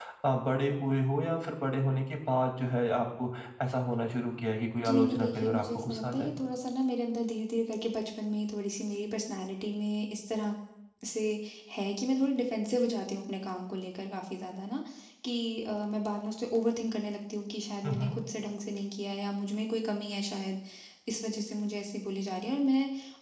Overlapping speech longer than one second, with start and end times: 4.8-6.3

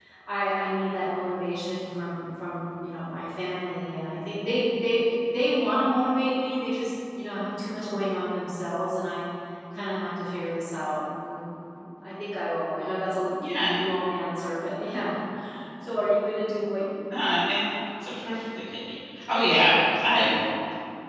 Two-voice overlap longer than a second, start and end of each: none

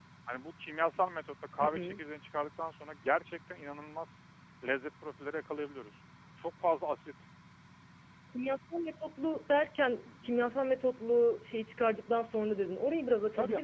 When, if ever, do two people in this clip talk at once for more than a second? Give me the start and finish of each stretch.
none

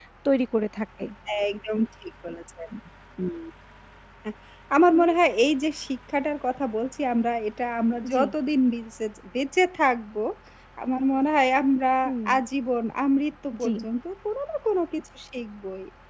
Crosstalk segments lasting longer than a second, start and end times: none

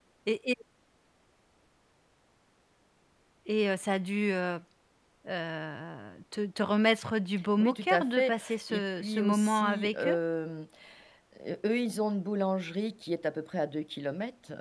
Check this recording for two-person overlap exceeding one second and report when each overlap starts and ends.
7.6-10.2

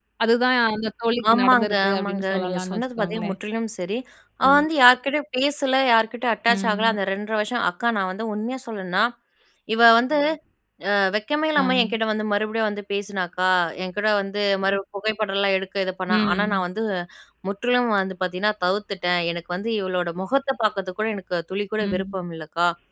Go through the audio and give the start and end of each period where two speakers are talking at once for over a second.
1.3-3.4

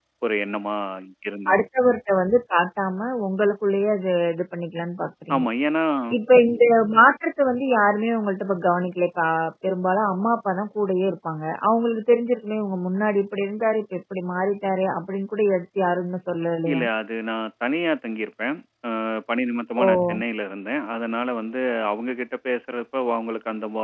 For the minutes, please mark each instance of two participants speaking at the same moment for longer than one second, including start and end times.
none

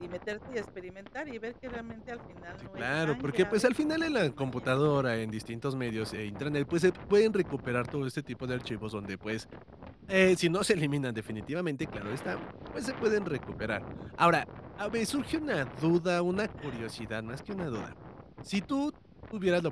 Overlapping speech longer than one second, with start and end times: 2.8-4.8

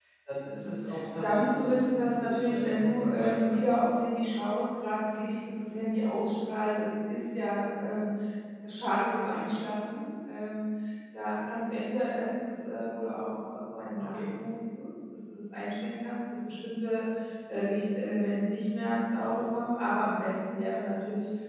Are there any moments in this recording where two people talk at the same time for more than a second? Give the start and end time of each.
1.2-3.6

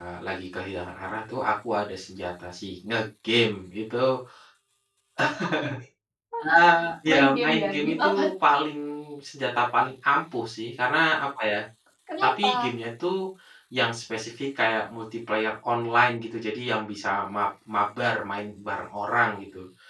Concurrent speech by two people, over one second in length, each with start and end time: 7.1-8.3

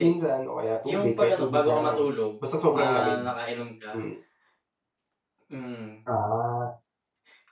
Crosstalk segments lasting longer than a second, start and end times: 0.8-2.1

